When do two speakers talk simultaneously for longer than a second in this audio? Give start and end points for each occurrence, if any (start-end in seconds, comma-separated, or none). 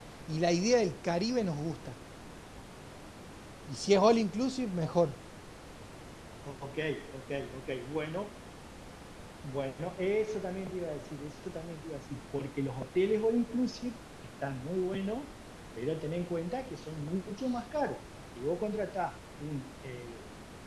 none